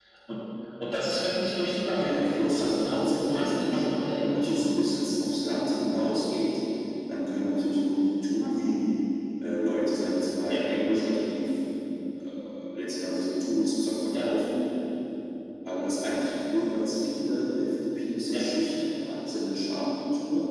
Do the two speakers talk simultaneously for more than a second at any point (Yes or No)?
Yes